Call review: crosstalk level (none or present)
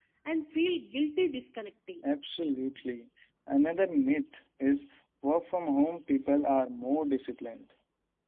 none